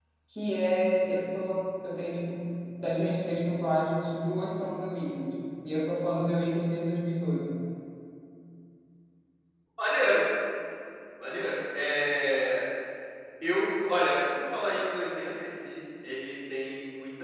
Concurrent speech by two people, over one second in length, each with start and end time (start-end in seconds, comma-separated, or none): none